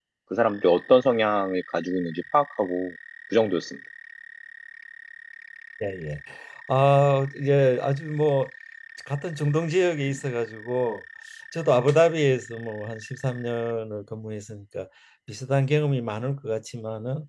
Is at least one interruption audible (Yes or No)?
No